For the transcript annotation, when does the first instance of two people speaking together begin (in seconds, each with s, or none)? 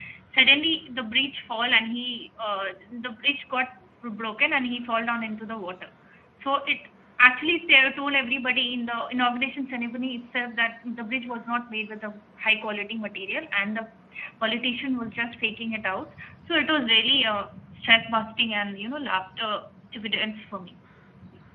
none